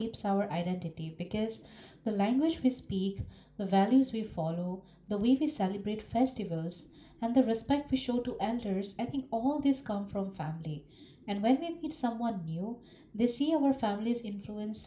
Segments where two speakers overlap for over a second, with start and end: none

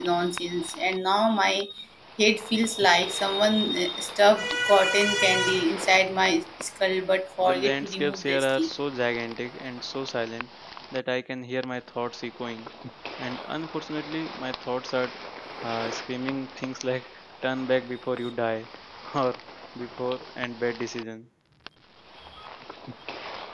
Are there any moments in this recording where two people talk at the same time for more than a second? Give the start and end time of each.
7.4-8.7

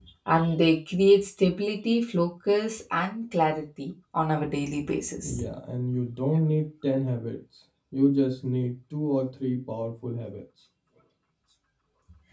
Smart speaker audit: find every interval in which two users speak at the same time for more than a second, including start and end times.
none

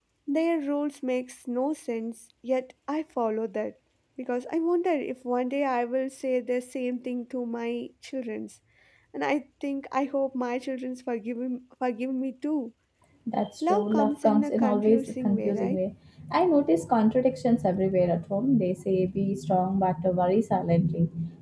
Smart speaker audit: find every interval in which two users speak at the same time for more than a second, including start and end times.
13.7-15.8

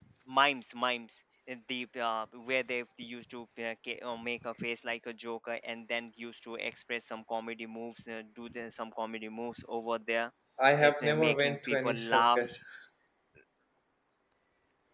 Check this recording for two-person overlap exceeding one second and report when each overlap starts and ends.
10.8-12.4

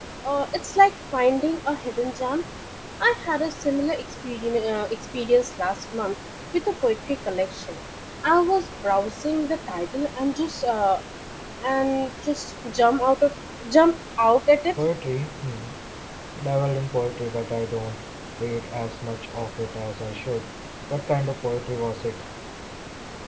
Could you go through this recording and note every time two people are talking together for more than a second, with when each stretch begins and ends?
none

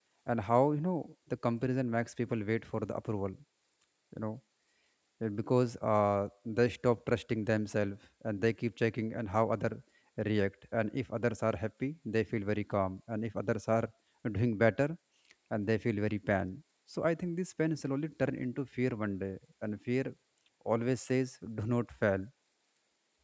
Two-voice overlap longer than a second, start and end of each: none

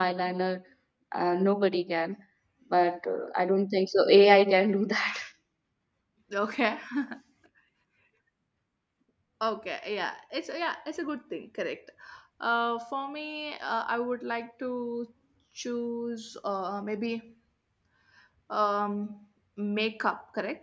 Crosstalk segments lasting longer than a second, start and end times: none

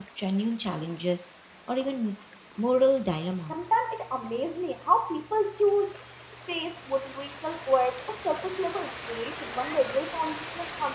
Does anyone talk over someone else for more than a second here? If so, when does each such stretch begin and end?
none

